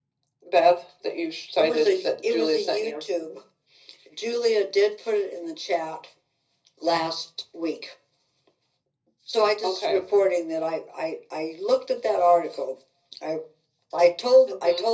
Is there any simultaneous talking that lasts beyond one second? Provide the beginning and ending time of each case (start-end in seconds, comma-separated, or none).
1.6-2.9